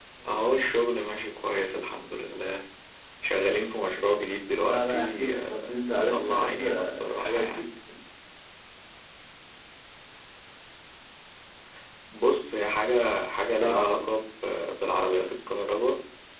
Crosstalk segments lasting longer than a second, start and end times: 4.7-7.7

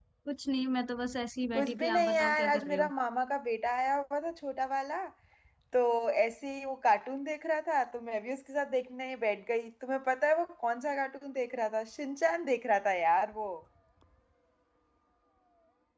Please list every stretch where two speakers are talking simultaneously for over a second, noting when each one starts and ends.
1.5-2.9

